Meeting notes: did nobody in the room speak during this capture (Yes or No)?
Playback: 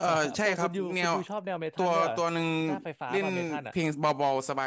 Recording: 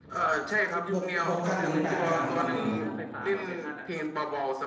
No